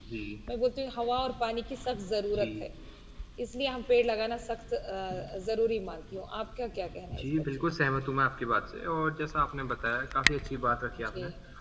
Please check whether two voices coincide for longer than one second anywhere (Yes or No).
No